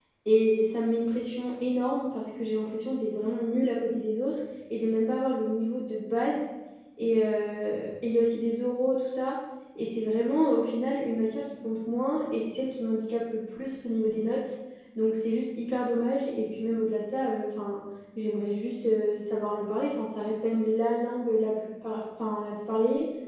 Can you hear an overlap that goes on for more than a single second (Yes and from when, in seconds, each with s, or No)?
No